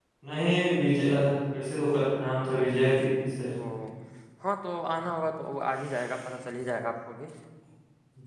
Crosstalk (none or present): none